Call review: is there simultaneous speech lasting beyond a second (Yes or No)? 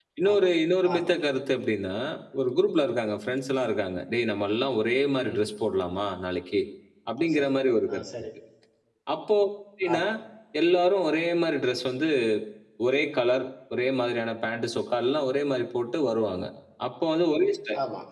No